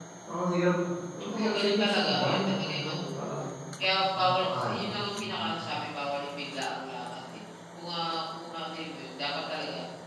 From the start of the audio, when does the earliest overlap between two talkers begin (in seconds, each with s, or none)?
1.3 s